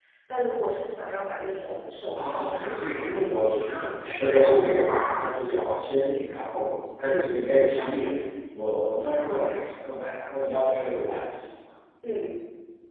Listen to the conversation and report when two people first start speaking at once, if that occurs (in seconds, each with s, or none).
2.2 s